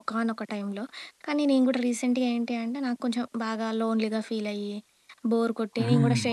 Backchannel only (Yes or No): Yes